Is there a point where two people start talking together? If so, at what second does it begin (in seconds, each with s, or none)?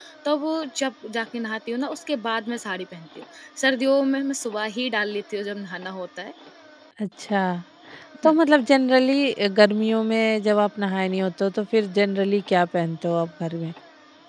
none